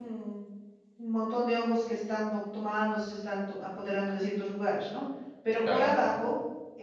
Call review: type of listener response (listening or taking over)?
listening